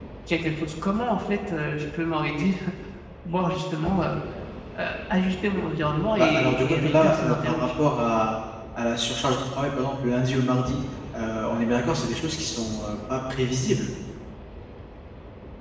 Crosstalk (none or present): present